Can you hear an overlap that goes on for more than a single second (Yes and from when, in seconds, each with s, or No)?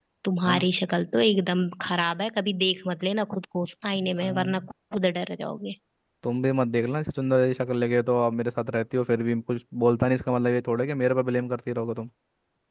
No